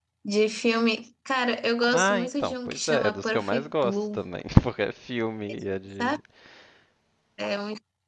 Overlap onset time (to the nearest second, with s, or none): 2 s